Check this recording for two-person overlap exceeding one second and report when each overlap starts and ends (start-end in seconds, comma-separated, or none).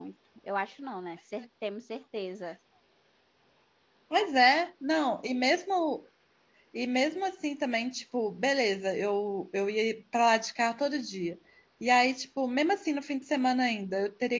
none